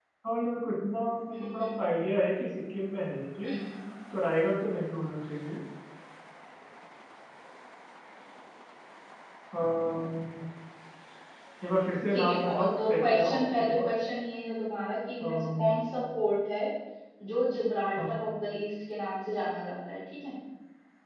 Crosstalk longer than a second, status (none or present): present